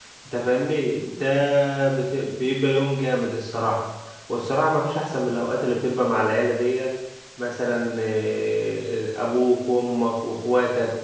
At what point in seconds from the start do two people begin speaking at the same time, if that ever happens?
none

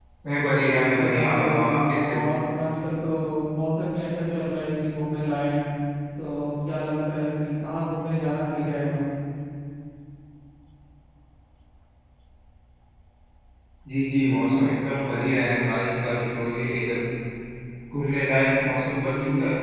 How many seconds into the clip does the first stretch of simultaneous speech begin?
0.9 s

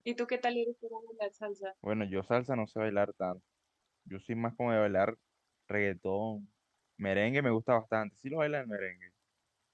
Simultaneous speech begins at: none

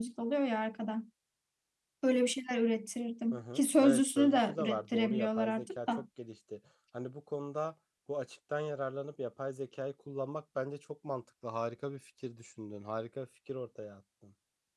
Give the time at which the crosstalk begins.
3.3 s

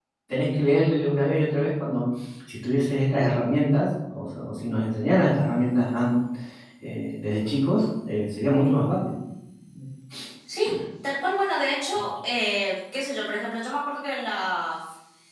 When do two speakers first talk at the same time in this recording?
none

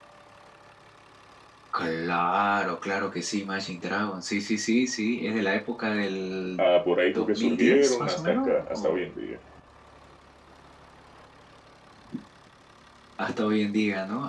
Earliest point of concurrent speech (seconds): 7.1 s

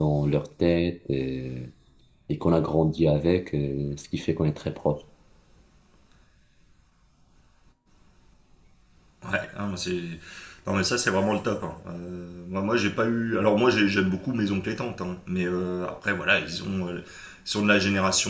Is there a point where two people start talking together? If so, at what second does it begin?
none

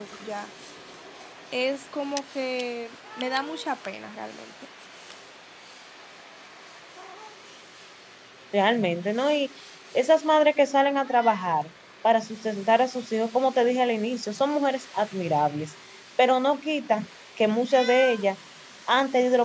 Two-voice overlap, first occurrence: none

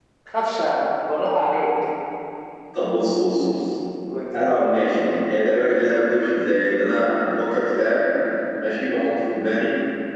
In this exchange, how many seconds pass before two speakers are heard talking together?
none

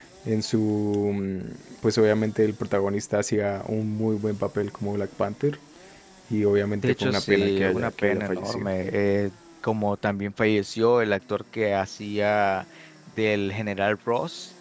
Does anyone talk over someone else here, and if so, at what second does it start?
6.8 s

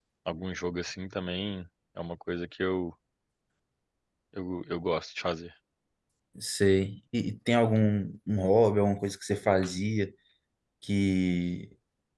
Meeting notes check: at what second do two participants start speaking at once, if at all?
none

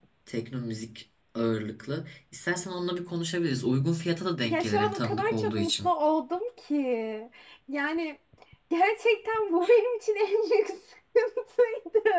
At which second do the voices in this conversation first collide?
4.4 s

